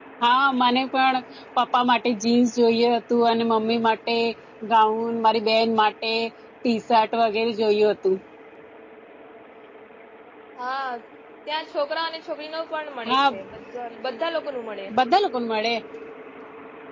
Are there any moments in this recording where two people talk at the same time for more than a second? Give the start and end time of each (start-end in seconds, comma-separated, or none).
none